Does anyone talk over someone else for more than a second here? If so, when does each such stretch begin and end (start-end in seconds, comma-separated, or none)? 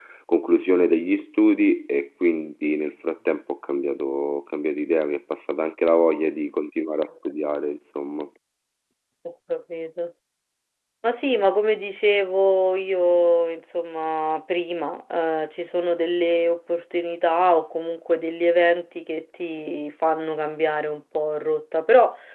none